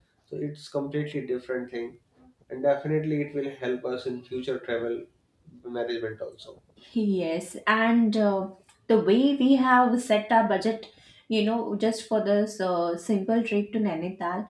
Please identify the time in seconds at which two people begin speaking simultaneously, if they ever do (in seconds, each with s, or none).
none